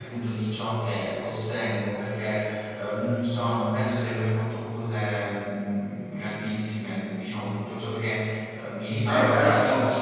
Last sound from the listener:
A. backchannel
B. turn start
B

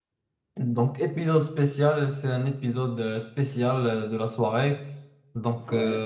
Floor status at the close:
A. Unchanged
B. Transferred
A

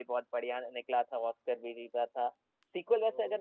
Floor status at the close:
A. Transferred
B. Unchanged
B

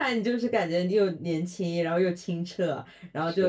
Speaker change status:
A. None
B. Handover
A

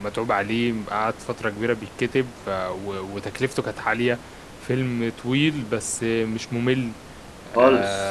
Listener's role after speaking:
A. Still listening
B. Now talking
A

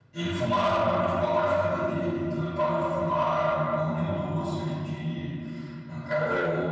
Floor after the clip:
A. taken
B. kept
B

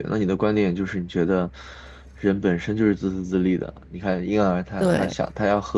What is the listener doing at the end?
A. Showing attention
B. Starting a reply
A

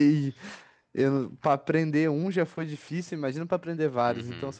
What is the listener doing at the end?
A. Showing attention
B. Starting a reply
B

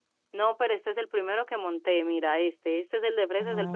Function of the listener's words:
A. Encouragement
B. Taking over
B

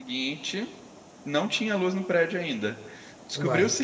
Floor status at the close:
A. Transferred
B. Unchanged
B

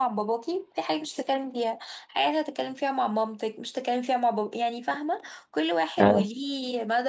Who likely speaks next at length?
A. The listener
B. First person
B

